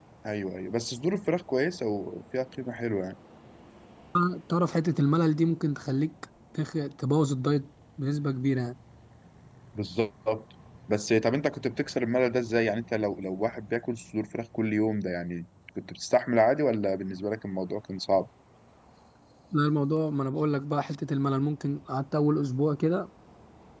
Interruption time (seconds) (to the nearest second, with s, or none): none